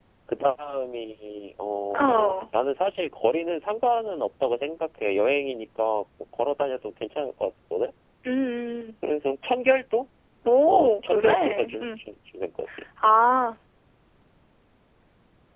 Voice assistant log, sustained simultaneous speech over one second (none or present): present